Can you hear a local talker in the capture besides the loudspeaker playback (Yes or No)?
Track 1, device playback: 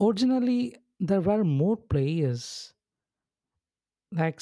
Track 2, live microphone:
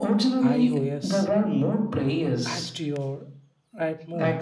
Yes